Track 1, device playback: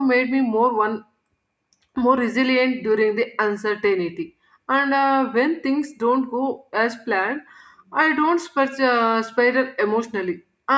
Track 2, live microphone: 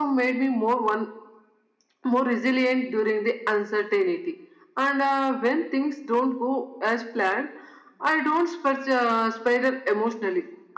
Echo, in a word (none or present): present